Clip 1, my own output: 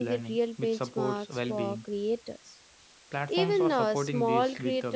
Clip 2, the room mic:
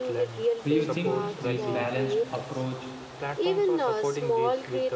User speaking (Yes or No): Yes